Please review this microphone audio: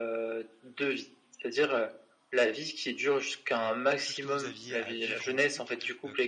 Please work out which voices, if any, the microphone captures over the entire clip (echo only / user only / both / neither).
both